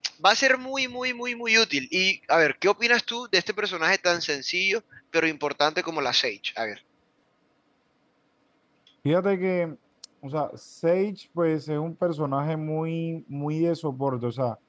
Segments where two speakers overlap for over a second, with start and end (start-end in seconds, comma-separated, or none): none